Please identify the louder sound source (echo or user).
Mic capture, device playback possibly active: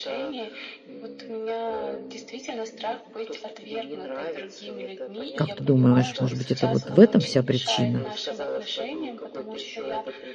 user